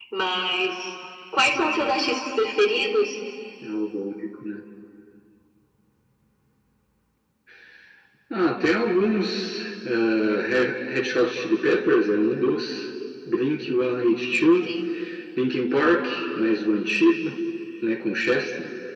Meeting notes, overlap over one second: none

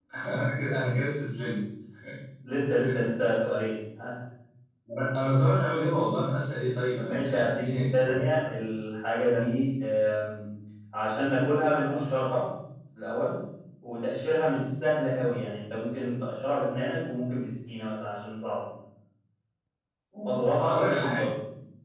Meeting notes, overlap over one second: present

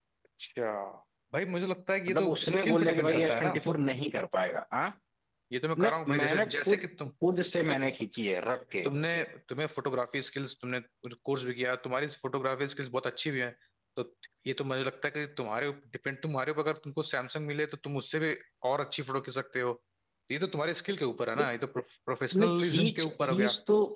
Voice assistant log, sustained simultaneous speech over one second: present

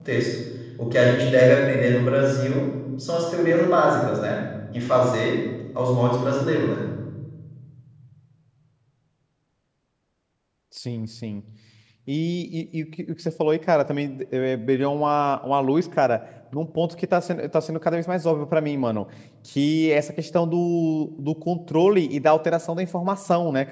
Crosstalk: none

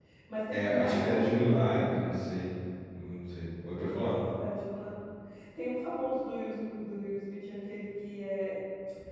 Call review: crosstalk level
present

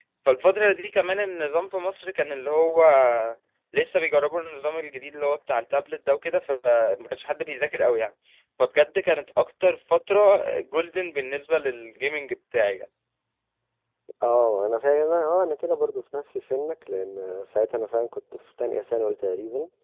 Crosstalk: none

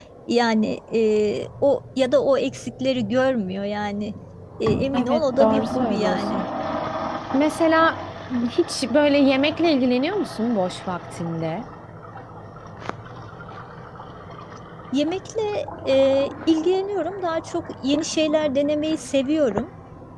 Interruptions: present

